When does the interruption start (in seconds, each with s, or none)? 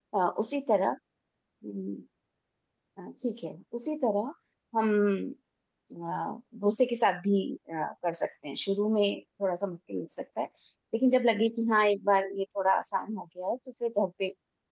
none